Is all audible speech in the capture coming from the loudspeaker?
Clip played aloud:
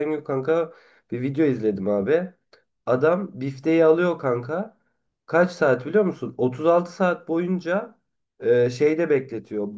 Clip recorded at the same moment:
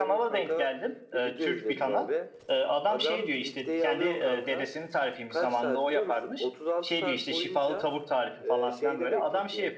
No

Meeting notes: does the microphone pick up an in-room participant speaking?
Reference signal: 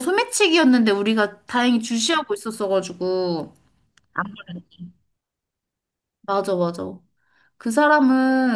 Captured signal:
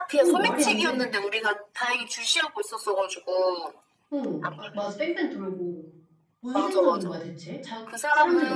Yes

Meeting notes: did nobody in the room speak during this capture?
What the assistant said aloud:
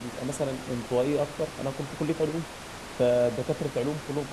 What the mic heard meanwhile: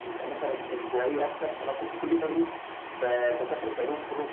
Yes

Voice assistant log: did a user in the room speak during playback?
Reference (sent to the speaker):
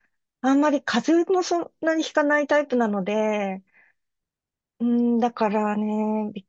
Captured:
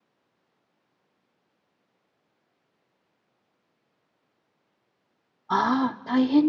Yes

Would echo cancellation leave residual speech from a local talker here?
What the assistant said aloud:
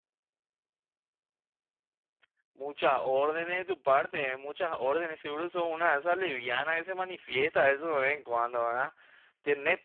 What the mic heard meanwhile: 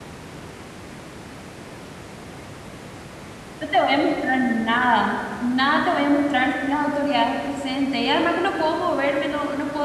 Yes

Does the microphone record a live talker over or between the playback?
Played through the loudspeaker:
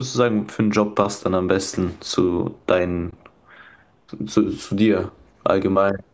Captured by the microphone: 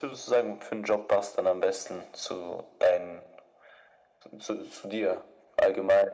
No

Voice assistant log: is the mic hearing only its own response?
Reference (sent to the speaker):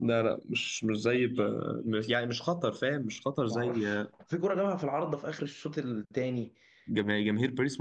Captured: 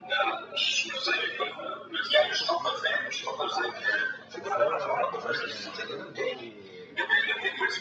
No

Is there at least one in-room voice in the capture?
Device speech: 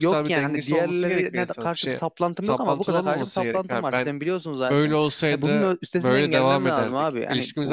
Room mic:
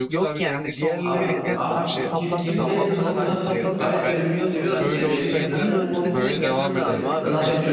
Yes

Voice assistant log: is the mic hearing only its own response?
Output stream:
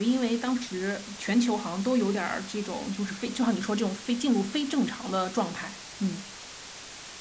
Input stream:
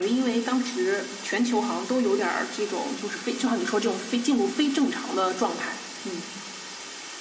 Yes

